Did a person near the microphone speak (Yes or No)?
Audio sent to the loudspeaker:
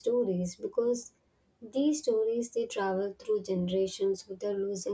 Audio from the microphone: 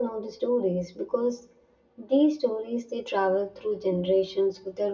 No